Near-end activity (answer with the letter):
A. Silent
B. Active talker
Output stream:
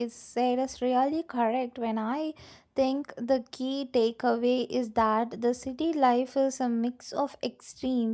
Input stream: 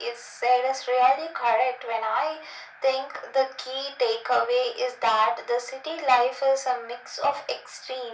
A